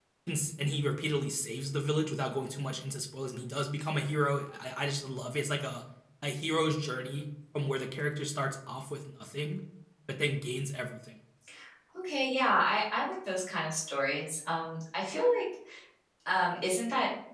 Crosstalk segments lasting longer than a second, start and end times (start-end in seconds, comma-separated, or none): none